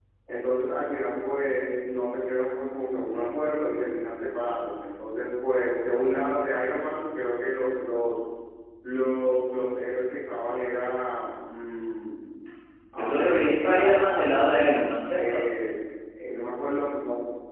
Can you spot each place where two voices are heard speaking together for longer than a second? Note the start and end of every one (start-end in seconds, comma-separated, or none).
12.9-14.4